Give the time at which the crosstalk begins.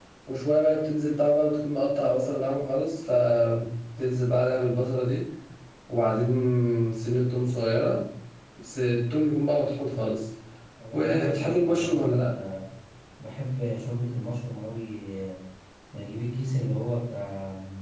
10.9 s

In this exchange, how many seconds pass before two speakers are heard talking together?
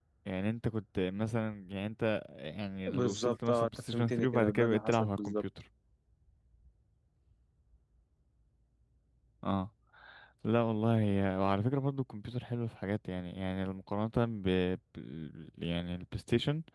2.9 s

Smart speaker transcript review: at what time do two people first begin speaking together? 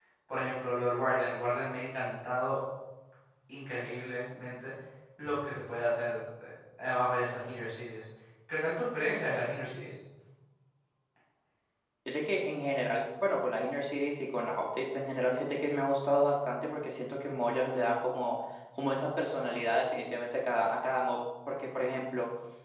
none

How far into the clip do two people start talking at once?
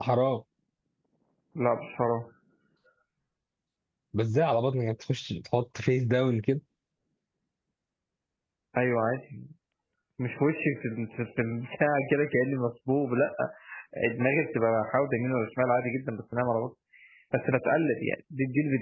none

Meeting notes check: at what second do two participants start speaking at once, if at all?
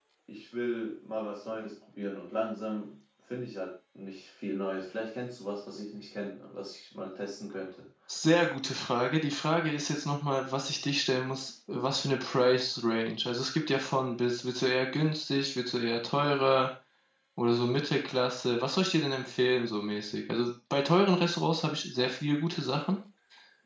none

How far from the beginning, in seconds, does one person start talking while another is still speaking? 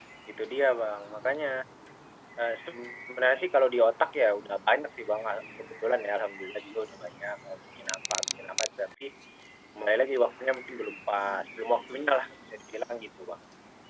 none

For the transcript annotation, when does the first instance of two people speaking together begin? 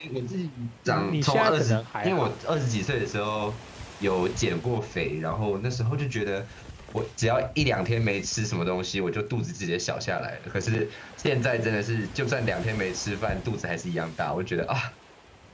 0.9 s

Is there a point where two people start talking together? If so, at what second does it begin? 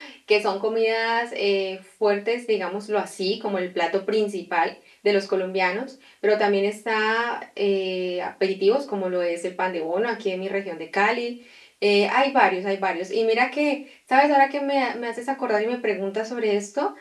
none

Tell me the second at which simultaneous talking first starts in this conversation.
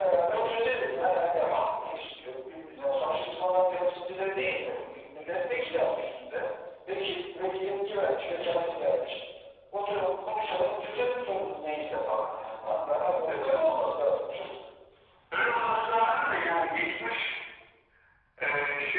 none

